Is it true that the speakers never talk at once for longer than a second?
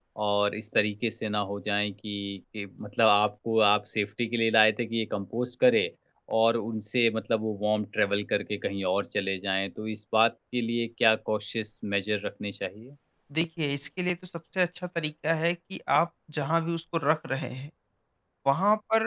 Yes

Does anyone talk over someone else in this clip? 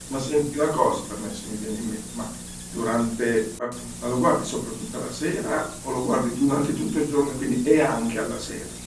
No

